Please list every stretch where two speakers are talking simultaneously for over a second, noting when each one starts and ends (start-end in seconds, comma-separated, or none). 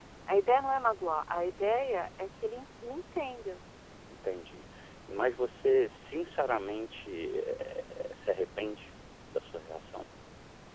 none